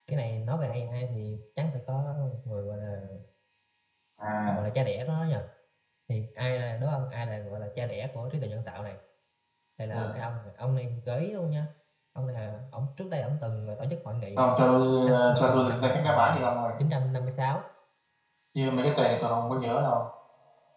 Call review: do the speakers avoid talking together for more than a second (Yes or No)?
No